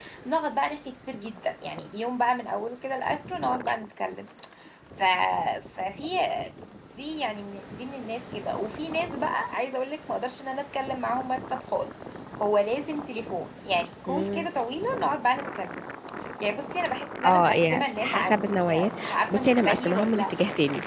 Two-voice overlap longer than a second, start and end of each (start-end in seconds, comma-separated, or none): 17.2-20.3